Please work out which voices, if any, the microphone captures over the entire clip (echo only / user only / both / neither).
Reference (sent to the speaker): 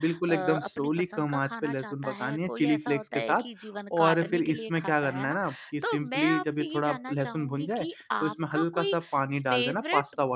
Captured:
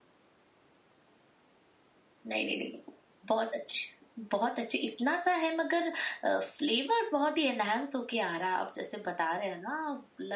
user only